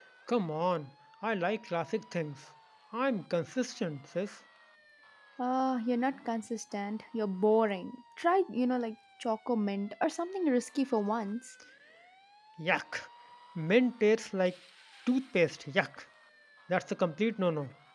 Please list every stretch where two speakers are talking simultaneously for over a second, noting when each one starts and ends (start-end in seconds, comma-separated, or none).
none